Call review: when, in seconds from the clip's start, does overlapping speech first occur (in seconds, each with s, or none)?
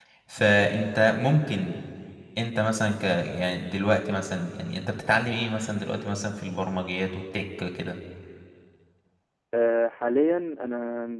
none